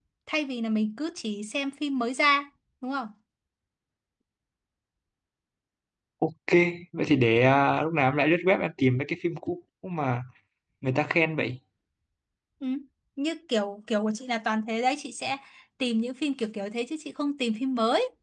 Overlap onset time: none

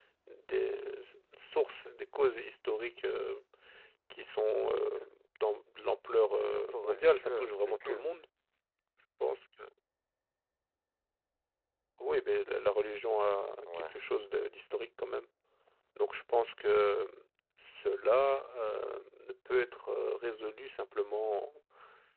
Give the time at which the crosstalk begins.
6.4 s

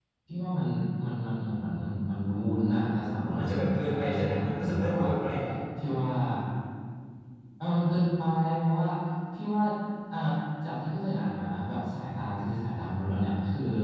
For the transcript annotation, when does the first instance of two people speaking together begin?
3.2 s

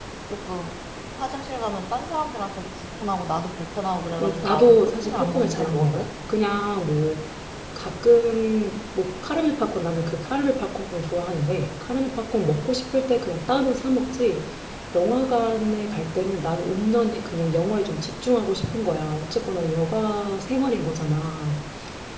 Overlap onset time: 4.2 s

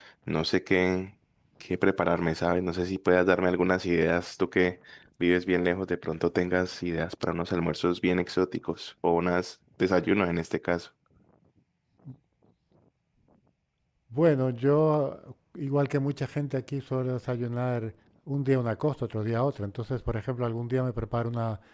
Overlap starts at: none

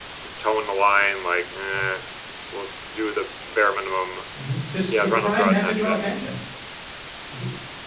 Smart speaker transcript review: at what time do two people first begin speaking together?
4.9 s

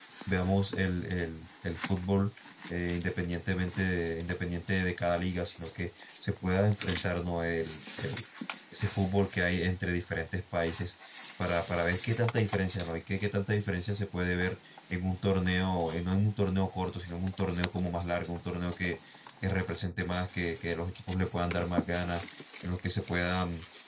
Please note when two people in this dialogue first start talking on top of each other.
none

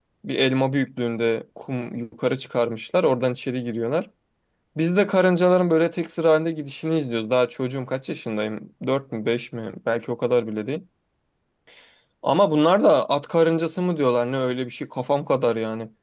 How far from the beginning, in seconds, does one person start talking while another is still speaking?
none

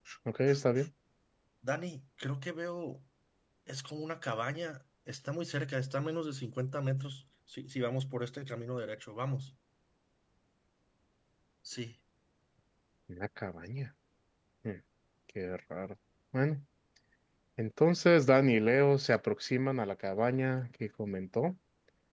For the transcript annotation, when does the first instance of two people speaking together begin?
none

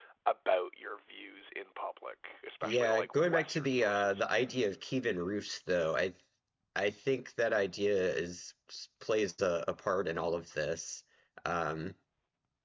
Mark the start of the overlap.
2.6 s

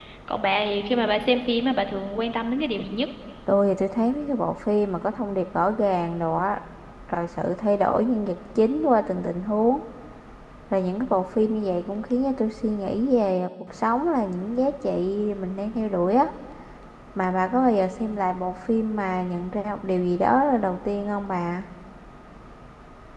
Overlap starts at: none

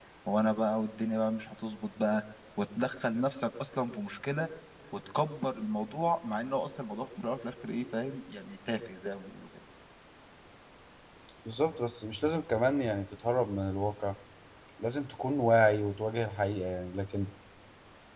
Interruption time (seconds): none

